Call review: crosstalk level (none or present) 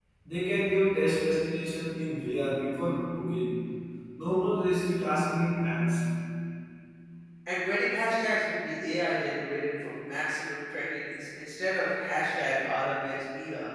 none